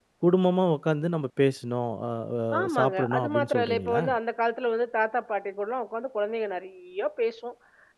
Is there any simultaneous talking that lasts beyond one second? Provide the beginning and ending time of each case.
2.6-4.0

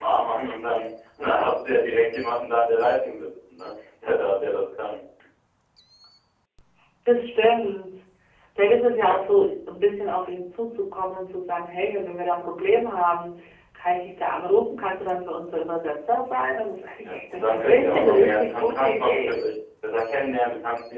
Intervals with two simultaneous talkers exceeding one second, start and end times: 17.0-19.4

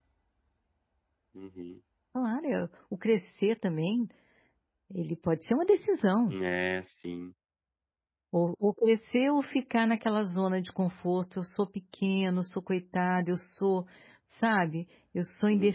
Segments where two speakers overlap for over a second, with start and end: none

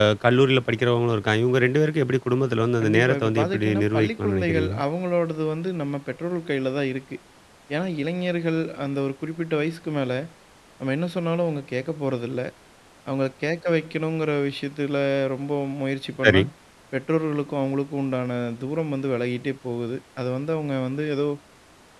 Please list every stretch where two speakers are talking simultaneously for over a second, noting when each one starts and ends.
2.8-4.7

